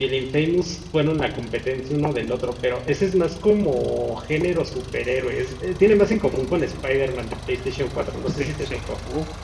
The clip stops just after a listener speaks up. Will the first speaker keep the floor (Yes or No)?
No